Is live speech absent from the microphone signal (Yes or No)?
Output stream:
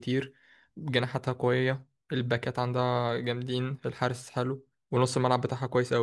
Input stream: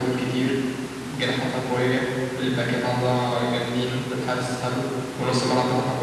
Yes